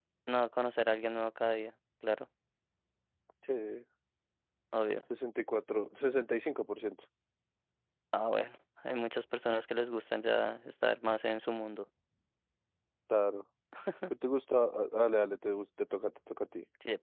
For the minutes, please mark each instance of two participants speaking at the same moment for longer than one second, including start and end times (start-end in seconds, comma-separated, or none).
none